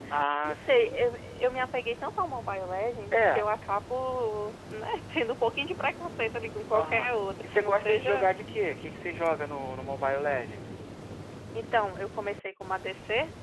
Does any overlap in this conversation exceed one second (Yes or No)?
Yes